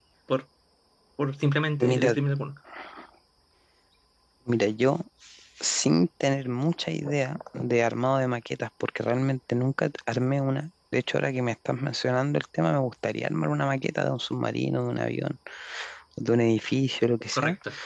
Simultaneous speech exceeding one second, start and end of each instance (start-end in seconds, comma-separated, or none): none